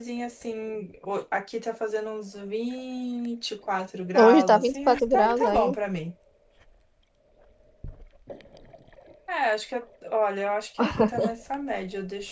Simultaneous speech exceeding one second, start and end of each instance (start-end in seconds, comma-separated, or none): 4.1-5.8